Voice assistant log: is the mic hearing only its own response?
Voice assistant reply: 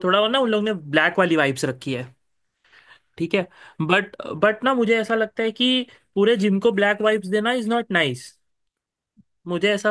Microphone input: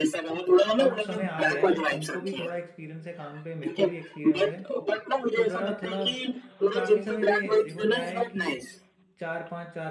No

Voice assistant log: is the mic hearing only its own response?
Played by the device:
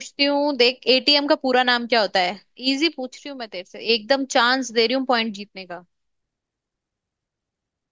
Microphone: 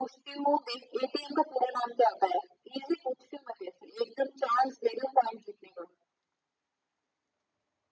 Yes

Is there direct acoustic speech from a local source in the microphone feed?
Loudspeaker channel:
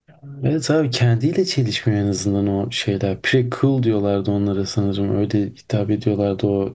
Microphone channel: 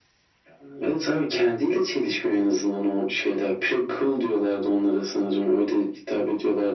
No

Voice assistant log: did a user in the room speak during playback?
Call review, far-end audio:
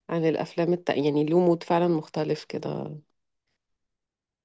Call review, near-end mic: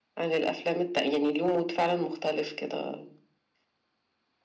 No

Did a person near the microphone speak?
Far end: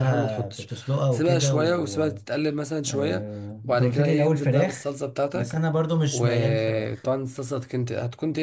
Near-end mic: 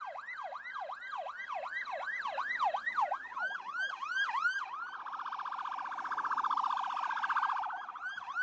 No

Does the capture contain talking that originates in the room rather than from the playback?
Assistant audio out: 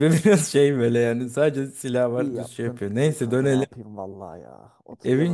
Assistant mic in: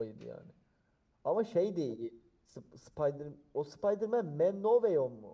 Yes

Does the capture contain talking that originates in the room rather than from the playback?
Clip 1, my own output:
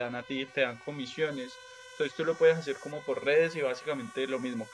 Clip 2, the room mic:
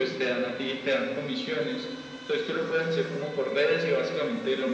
No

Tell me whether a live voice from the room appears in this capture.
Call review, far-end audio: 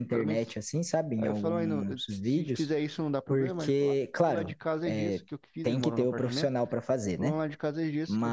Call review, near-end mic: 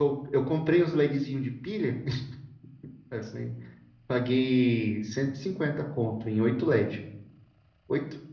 Yes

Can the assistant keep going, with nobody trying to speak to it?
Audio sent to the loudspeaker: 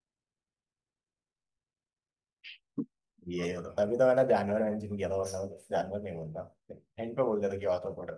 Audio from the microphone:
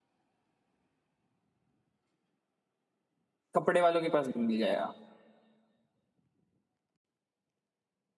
No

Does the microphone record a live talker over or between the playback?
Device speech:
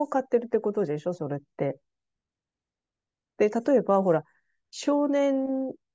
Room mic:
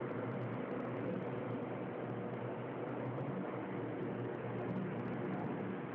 No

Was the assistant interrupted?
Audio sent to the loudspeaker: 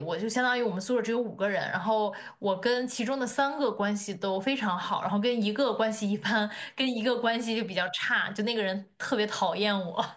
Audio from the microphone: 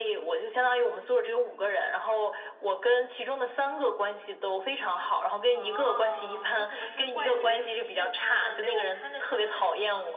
Yes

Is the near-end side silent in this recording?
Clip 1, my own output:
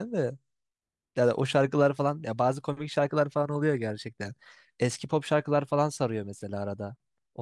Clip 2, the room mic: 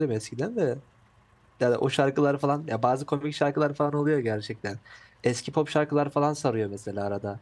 Yes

